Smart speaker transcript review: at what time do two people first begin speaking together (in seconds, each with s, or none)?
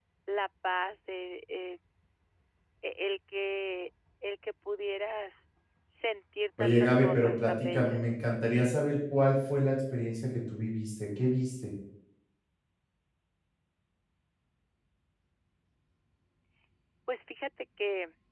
6.6 s